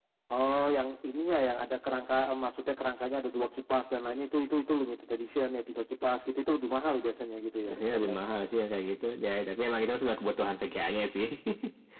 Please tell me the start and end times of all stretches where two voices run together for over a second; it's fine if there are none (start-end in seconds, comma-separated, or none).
none